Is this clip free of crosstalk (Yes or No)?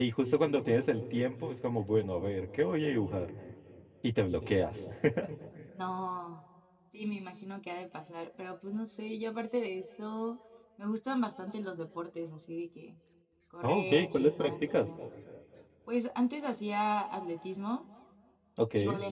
No